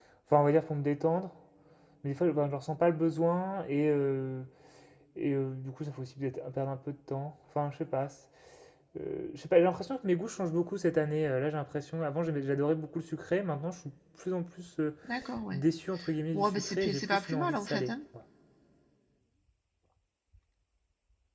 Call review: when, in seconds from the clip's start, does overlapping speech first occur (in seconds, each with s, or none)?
16.3 s